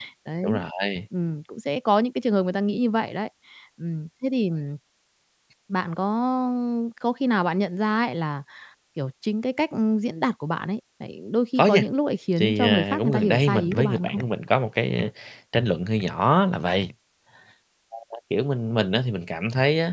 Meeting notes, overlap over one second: present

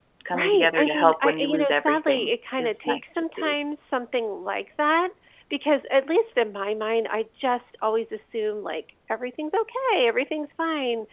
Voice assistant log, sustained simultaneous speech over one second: present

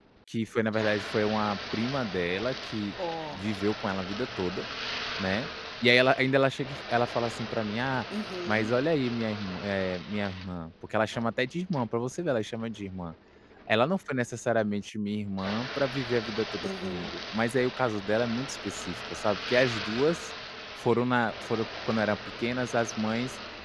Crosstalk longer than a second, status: none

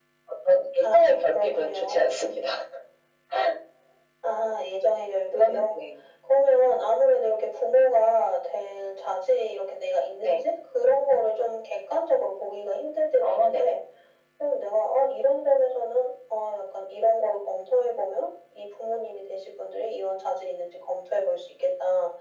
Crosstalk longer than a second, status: present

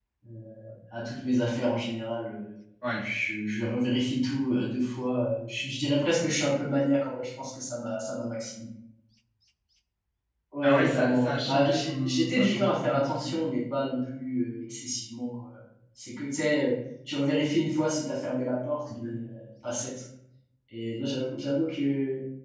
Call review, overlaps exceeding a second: present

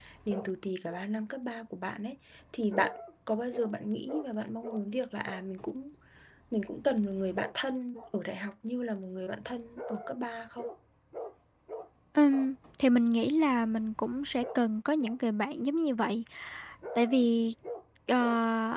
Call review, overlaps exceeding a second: none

